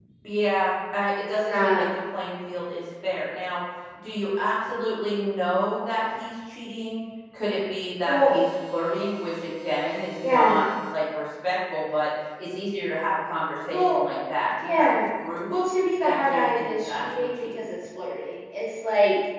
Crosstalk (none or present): present